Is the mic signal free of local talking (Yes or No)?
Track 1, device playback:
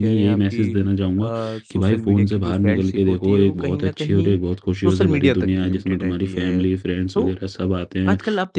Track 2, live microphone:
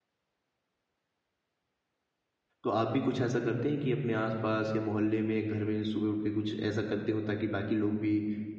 No